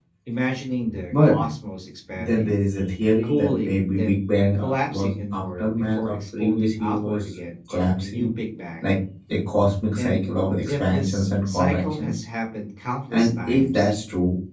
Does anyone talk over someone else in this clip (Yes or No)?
Yes